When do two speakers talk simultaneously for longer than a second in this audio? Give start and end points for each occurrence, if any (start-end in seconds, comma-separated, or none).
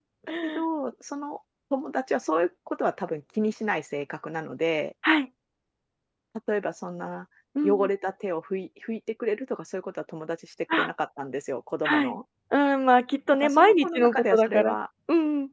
13.3-14.8